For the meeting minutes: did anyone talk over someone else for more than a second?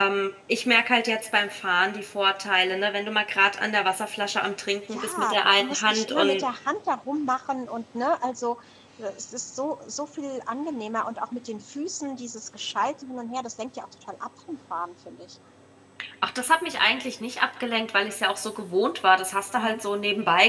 Yes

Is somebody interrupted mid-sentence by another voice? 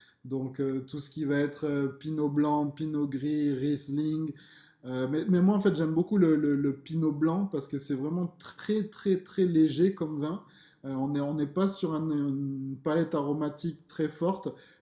No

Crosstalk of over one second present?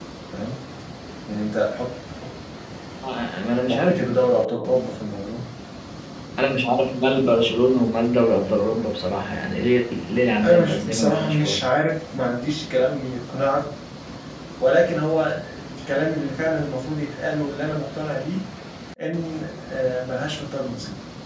Yes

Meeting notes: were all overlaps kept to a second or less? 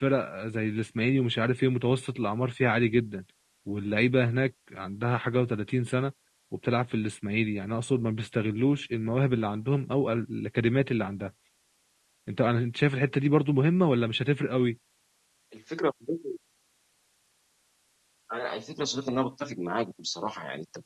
Yes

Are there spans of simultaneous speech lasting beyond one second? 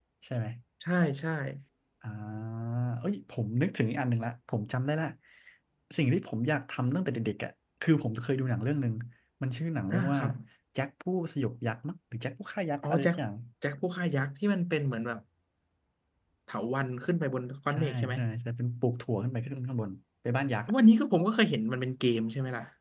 No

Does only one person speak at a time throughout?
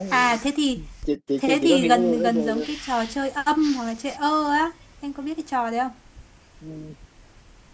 No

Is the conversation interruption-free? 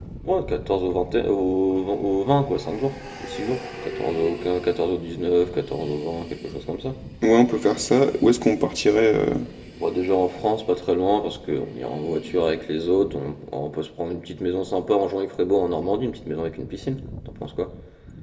Yes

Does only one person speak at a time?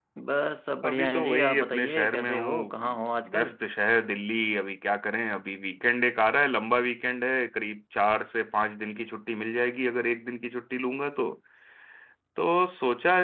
No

